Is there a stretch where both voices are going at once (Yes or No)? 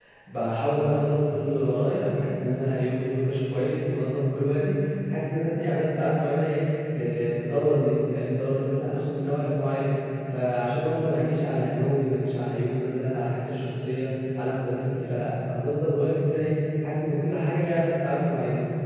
No